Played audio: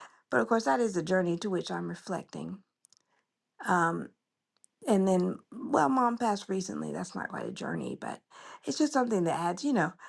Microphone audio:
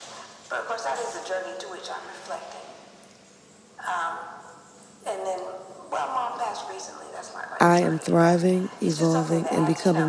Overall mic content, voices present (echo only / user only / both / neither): both